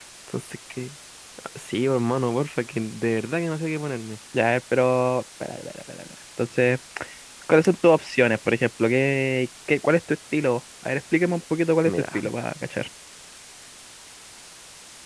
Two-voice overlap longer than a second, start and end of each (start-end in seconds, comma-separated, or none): none